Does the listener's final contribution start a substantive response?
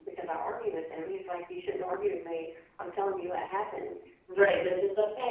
Yes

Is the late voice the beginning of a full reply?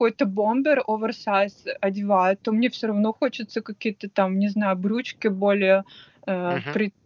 No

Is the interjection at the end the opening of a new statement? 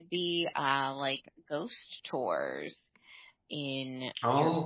Yes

